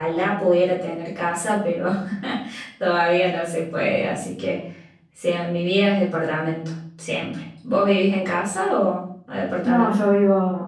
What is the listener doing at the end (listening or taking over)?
taking over